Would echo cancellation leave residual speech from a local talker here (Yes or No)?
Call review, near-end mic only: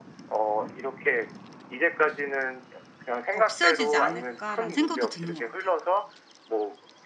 Yes